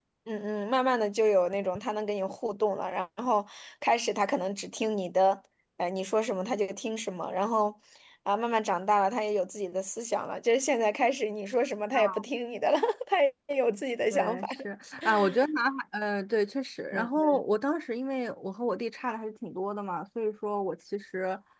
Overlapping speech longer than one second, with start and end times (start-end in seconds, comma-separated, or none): none